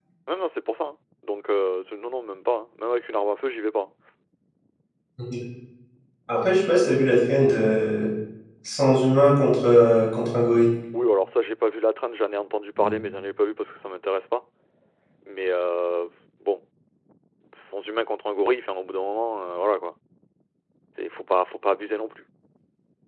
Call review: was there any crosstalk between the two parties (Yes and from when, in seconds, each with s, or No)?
No